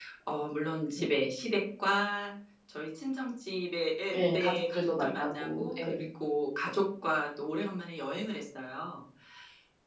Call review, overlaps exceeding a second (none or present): present